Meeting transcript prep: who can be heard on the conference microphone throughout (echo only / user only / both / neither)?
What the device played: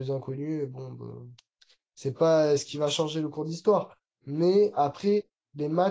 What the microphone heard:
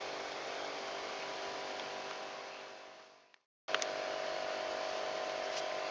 neither